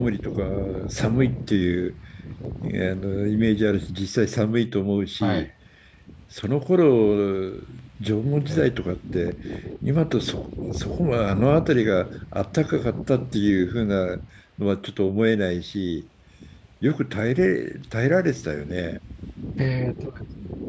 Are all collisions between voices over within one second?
Yes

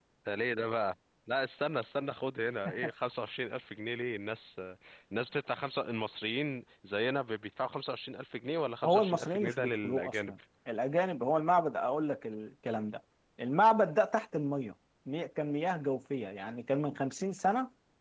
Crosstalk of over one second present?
Yes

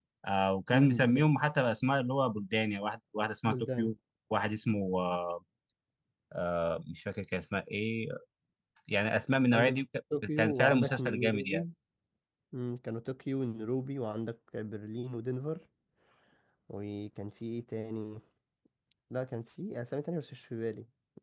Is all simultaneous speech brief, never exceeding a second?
No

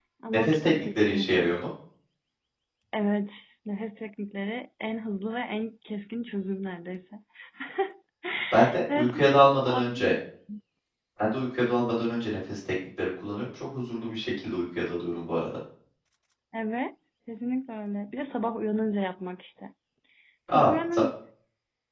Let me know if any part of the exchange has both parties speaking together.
Yes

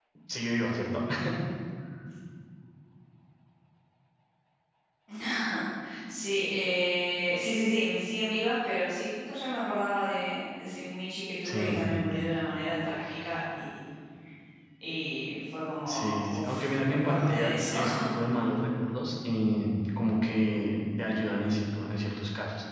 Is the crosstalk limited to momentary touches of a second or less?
No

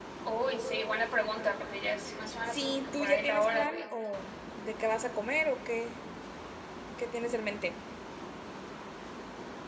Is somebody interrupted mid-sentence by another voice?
Yes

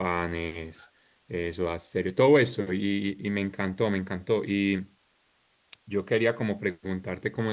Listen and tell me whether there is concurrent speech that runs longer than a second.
No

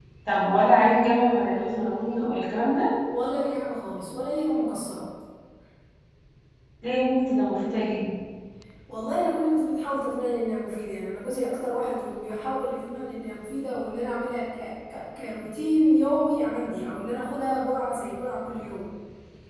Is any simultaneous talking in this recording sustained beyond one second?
No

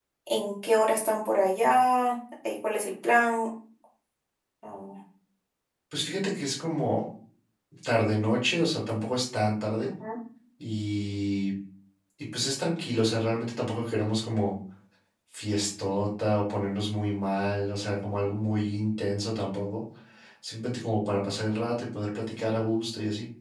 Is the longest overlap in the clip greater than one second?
No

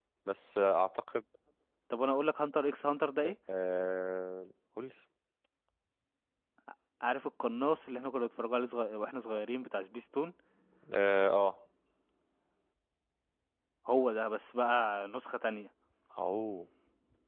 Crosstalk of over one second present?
No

